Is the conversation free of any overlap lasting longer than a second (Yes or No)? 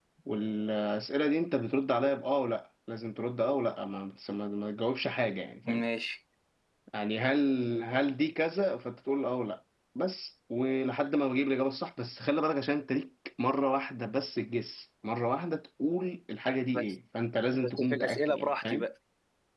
No